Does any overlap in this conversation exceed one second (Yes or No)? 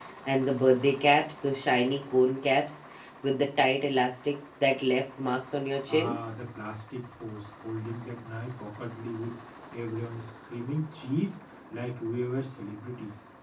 No